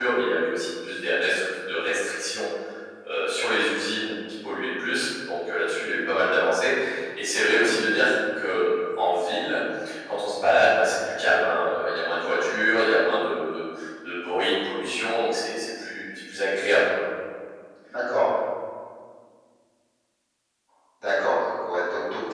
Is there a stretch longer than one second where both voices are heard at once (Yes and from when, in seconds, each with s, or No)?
No